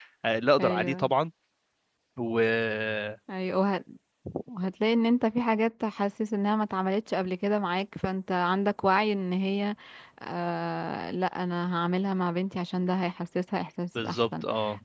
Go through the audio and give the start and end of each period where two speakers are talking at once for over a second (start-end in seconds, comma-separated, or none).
none